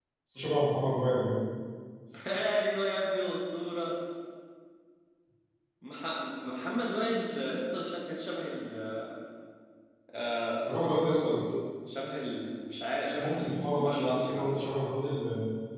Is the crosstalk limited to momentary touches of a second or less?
No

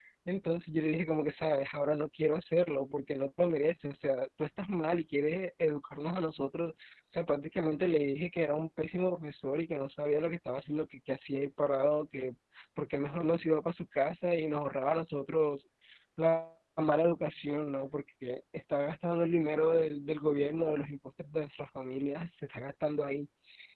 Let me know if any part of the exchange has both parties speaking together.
No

